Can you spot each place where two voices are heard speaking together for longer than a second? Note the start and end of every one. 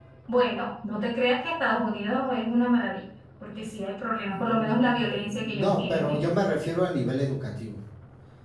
4.3-6.2

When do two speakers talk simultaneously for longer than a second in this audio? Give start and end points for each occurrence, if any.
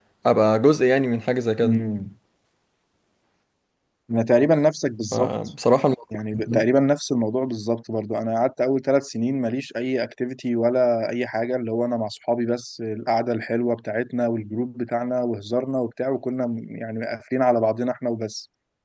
none

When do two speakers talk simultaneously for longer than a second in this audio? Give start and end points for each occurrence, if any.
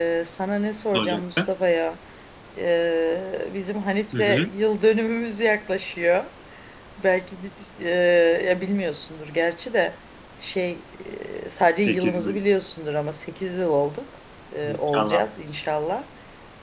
none

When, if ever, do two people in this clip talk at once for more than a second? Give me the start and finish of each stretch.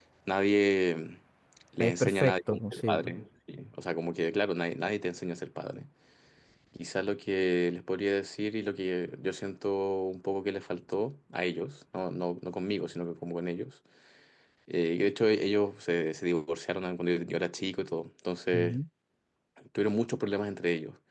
1.8-3.1

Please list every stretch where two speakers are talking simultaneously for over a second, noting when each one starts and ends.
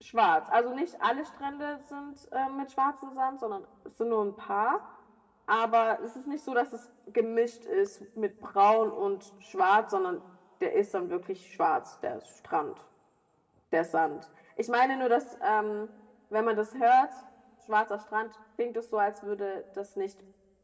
none

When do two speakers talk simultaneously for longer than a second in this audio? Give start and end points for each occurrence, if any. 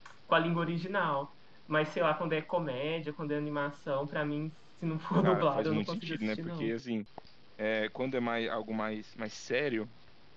5.2-6.7

